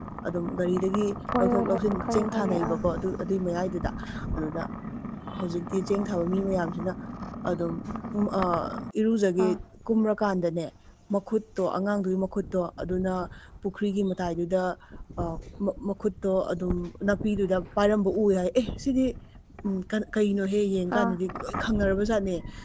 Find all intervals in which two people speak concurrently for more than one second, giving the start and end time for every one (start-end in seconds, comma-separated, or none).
1.4-2.8